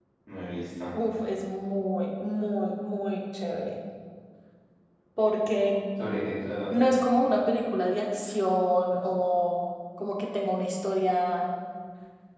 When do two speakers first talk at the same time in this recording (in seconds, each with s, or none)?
none